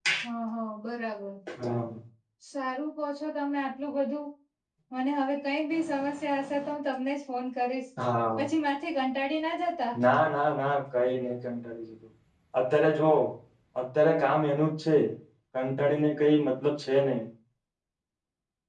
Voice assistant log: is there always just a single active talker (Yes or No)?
Yes